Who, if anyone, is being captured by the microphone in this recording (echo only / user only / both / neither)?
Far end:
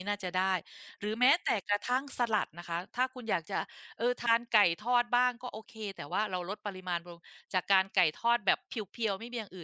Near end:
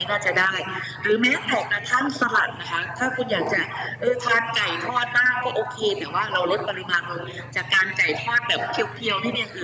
echo only